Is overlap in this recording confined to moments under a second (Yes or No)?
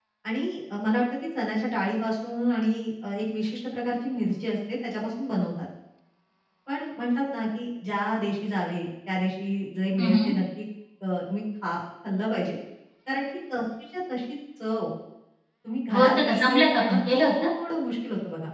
No